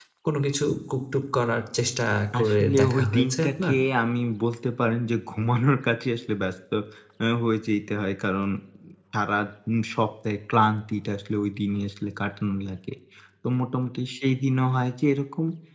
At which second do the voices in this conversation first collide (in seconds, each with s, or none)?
2.3 s